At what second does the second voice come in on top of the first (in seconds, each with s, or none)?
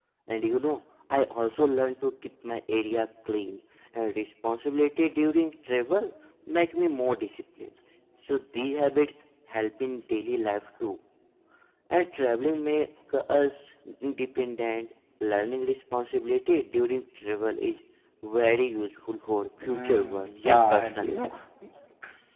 19.7 s